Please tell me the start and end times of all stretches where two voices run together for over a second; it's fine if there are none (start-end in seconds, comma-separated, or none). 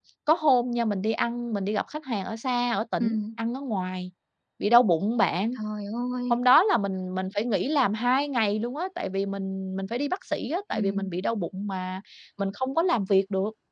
none